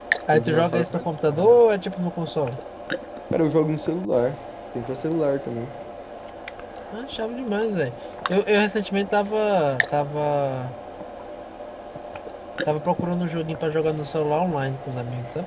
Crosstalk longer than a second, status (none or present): present